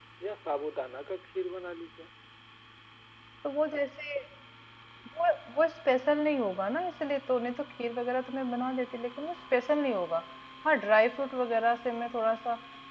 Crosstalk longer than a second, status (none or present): none